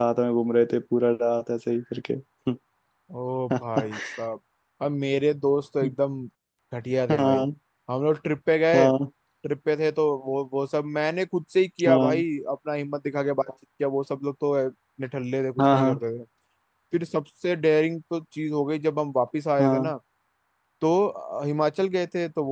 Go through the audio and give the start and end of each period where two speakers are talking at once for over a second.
none

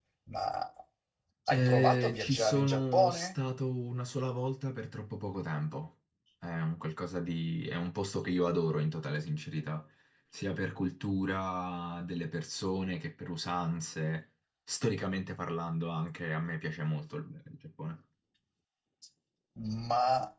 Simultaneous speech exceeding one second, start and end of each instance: 1.5-3.3

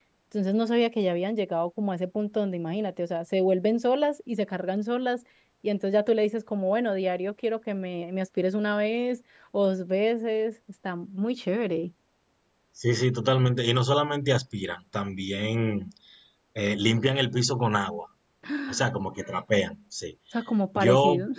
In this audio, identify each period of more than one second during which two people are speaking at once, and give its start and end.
none

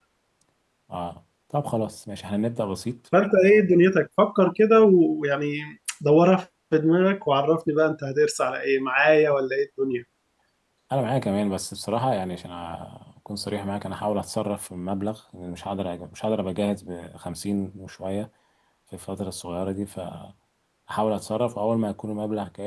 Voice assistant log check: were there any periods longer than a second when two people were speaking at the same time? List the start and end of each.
none

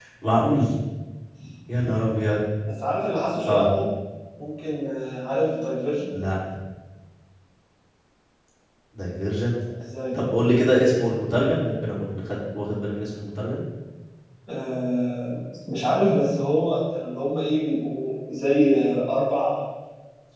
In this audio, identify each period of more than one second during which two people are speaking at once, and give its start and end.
none

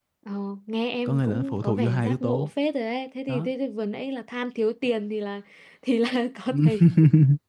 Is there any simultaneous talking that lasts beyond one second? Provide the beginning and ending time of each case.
1.1-2.5

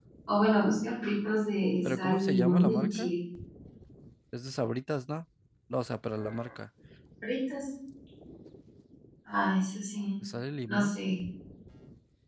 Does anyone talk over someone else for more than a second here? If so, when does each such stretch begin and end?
1.8-3.1

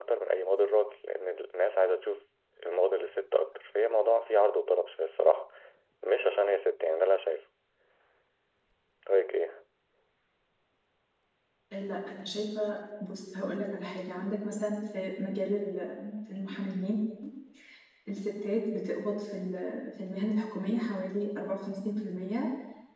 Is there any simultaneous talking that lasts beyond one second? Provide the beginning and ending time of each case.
none

